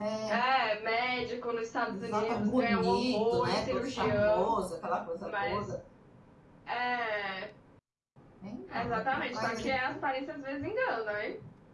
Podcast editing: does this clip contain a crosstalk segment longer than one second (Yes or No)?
Yes